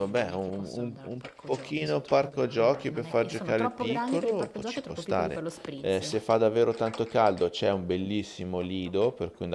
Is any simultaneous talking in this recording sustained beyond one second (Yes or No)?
Yes